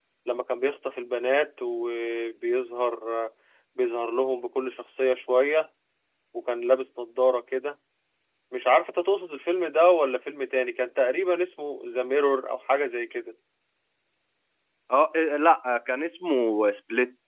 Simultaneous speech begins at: none

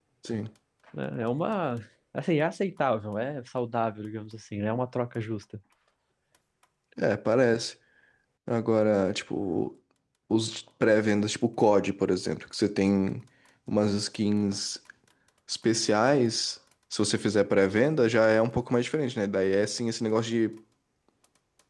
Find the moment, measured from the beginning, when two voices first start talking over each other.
none

